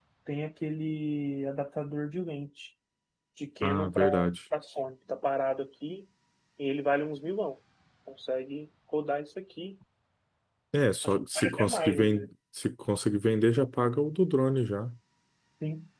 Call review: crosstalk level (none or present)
present